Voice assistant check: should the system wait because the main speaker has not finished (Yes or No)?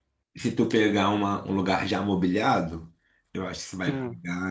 Yes